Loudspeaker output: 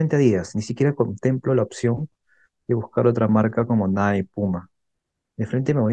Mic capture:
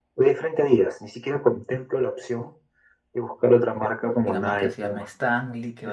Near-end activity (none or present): present